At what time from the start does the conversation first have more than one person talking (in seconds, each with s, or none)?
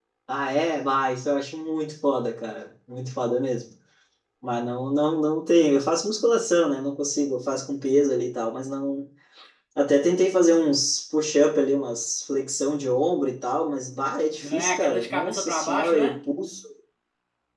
14.4 s